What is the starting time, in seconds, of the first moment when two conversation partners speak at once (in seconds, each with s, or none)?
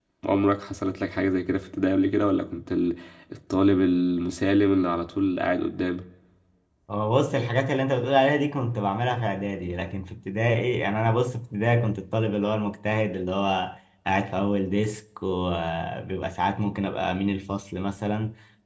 none